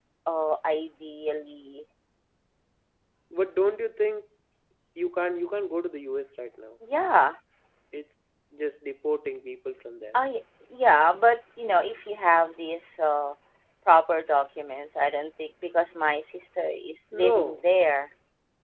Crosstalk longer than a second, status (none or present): none